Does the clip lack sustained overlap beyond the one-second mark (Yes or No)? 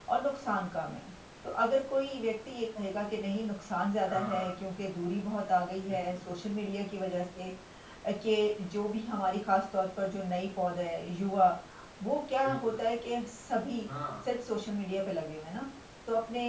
Yes